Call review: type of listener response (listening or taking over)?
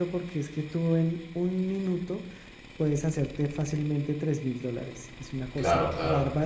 listening